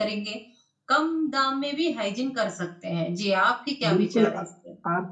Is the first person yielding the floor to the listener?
Yes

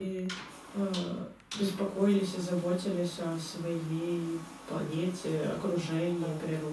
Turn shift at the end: Yes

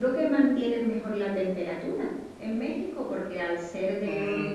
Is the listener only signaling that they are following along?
No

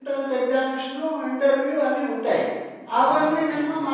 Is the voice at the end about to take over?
No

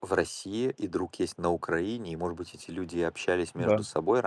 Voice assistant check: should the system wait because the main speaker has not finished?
Yes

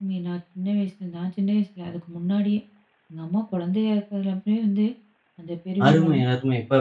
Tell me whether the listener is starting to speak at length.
Yes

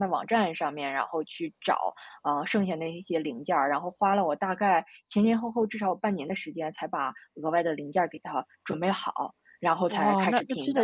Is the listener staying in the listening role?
No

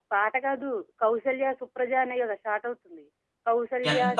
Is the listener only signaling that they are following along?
Yes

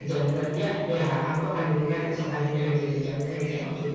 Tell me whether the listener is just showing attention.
No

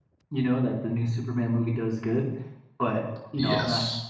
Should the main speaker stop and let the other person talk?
No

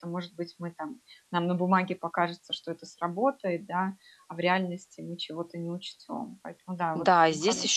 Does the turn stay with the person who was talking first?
No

